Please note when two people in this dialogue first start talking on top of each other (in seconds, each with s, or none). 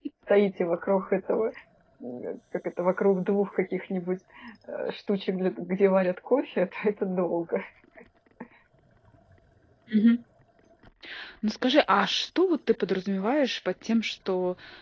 none